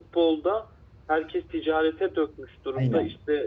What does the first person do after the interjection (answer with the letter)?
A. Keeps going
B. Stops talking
A